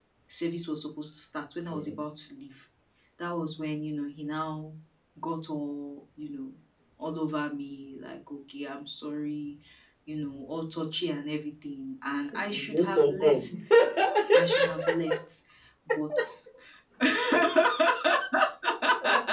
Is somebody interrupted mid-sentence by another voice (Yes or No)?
Yes